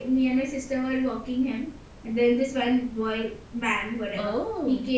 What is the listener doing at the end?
listening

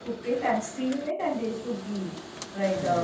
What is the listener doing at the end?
listening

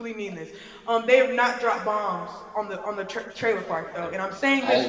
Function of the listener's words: listening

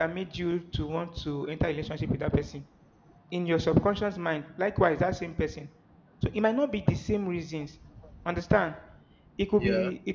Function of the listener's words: listening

